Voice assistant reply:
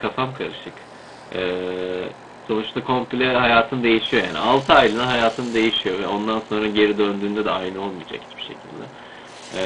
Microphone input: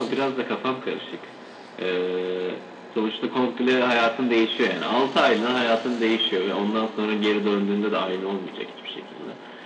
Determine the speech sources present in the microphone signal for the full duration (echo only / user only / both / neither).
echo only